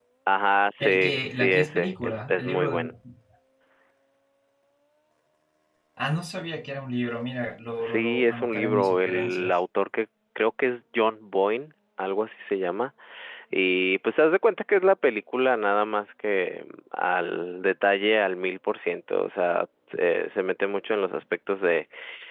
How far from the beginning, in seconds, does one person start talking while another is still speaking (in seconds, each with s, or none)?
0.8 s